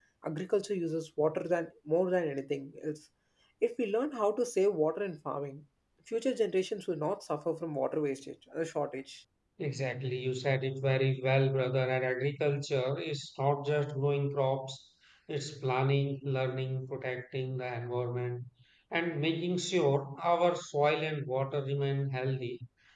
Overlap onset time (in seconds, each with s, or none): none